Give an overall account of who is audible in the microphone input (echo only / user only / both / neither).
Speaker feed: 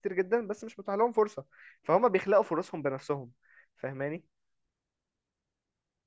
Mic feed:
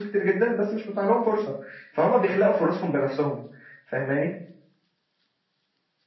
echo only